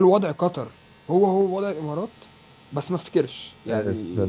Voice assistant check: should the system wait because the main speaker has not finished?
No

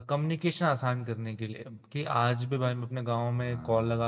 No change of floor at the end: Yes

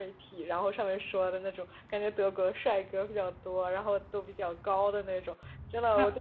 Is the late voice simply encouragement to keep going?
Yes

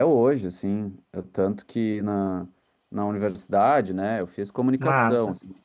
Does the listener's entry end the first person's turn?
No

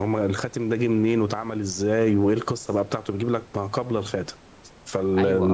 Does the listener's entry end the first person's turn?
Yes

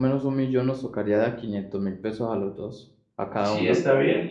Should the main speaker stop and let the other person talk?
Yes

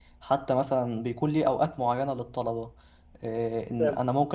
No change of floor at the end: Yes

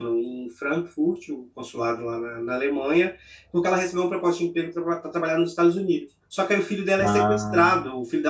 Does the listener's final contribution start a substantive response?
No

